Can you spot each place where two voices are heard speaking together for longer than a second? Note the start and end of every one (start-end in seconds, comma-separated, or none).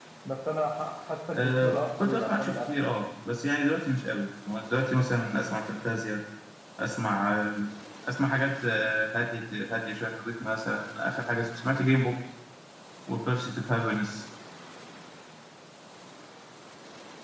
1.3-3.0